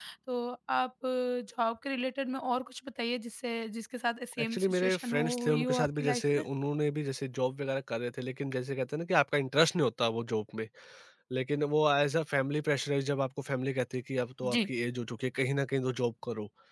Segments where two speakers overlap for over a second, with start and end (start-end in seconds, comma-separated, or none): 4.4-6.4